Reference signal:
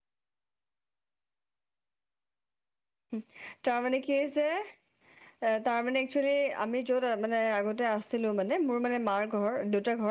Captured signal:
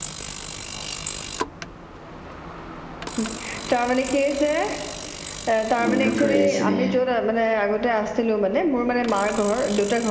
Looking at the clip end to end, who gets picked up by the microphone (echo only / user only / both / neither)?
both